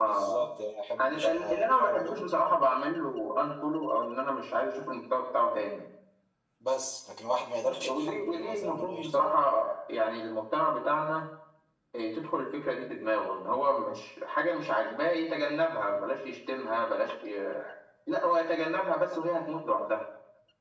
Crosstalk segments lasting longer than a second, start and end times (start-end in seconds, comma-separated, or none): 1.0-2.4, 7.6-9.4